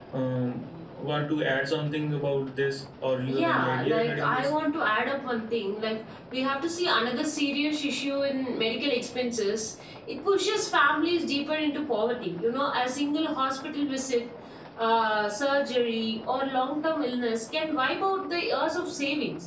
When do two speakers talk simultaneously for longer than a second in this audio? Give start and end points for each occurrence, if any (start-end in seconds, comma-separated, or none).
3.3-4.5